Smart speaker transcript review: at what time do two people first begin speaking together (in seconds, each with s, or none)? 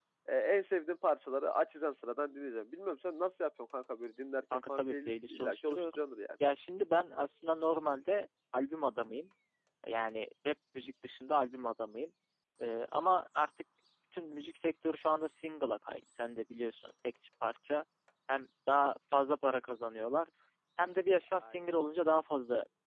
4.5 s